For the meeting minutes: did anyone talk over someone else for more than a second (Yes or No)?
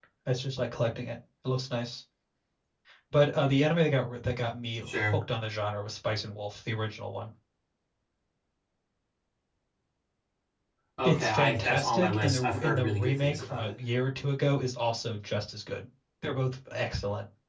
Yes